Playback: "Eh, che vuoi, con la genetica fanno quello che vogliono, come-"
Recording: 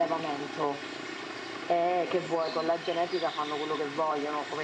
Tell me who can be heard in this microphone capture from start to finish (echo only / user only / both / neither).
echo only